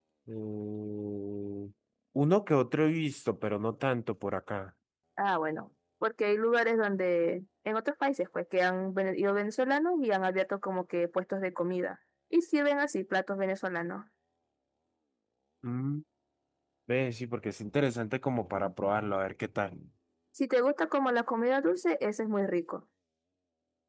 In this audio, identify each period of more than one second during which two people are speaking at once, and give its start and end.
none

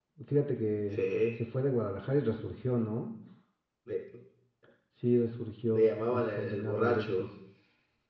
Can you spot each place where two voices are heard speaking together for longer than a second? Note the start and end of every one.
5.7-7.3

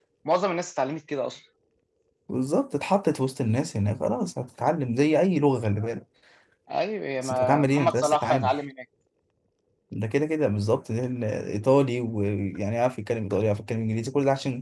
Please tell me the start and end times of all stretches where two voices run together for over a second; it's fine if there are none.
7.2-8.5

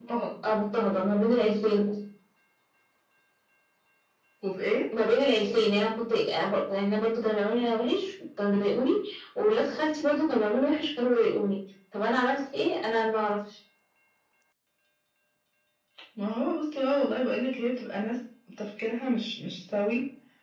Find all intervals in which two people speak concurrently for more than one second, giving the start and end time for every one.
none

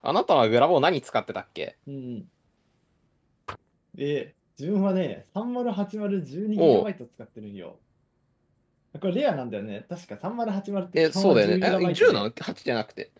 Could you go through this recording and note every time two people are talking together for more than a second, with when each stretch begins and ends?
11.0-12.3

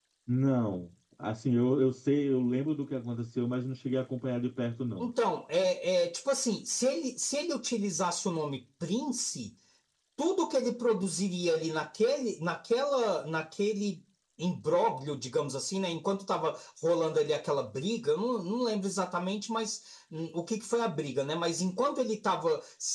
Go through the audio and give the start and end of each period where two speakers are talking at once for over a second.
none

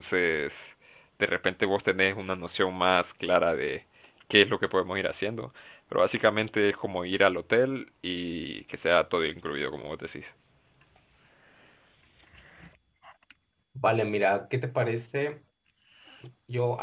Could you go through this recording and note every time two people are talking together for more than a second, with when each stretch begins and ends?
none

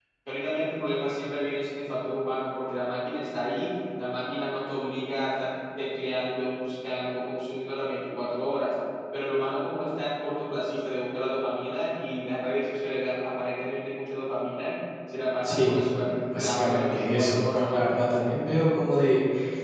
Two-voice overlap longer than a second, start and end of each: 15.4-17.8

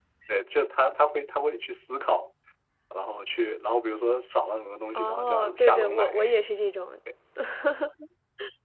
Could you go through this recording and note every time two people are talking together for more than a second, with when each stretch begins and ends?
5.0-6.2

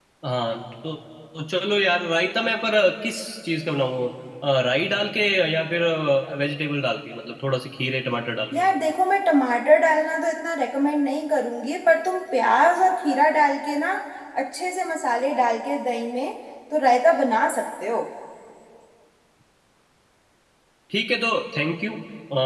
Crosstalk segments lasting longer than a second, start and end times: none

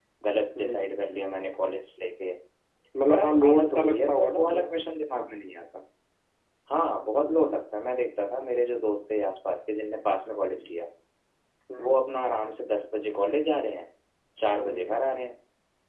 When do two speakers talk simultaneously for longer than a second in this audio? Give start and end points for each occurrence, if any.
3.1-4.5

